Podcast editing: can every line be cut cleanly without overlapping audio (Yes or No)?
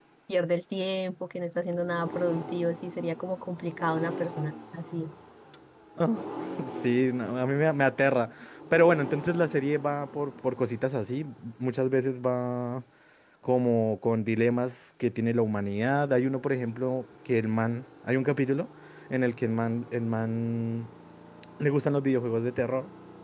Yes